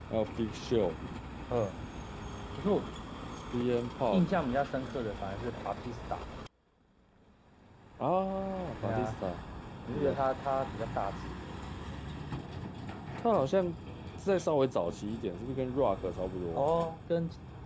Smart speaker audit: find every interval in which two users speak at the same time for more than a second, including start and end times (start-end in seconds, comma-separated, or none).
none